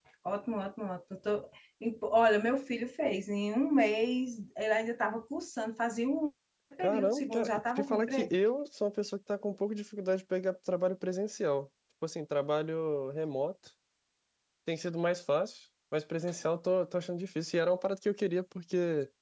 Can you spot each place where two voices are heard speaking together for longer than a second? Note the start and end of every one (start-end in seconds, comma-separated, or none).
6.8-8.3